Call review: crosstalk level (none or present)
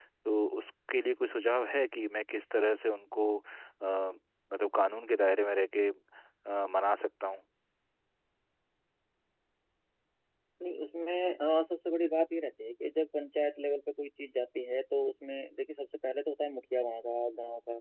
none